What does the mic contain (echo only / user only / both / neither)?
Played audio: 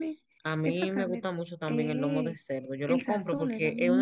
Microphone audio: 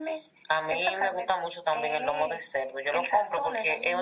echo only